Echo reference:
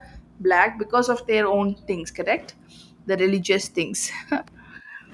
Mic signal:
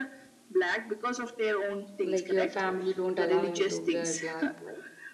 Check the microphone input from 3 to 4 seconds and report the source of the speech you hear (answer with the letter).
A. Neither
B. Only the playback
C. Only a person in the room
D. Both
D